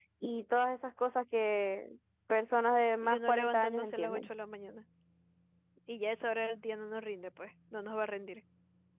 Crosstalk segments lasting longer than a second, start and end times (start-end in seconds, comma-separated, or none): 3.0-4.3